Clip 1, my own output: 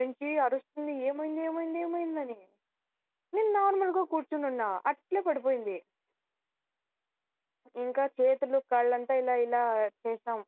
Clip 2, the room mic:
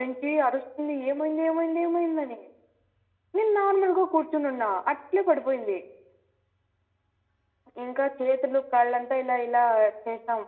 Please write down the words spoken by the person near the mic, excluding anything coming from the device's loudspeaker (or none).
none